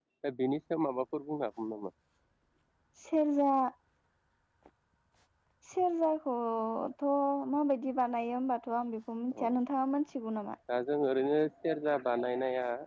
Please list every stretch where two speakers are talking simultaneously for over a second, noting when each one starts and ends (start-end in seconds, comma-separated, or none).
none